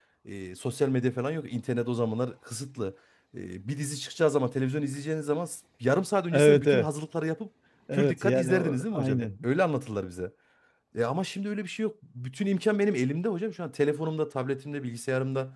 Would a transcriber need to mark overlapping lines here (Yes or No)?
Yes